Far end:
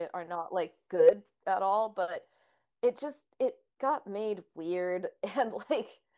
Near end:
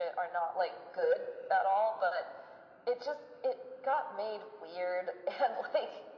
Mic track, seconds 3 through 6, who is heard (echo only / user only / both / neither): echo only